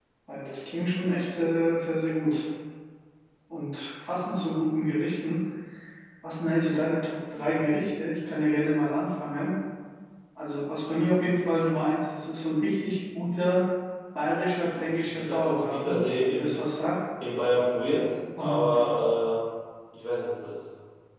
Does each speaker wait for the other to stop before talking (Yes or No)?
No